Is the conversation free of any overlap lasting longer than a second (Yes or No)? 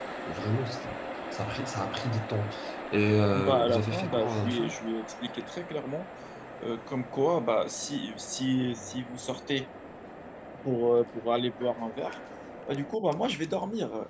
No